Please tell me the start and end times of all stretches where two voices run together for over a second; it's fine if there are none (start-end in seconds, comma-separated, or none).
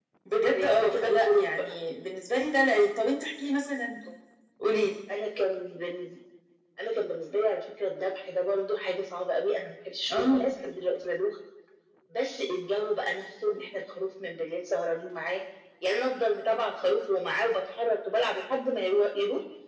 0.5-1.7